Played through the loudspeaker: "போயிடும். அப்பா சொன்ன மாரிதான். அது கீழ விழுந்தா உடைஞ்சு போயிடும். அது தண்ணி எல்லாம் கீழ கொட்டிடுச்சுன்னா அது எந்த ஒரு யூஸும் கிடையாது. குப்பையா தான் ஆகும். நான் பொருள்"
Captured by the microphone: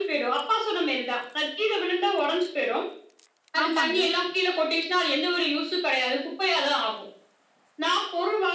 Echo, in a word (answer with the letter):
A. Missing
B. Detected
B